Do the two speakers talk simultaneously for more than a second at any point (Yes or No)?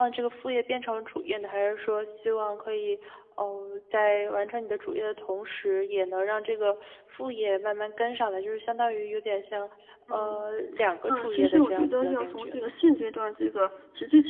Yes